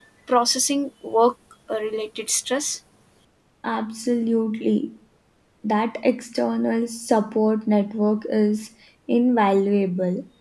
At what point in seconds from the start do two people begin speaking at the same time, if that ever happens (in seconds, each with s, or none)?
none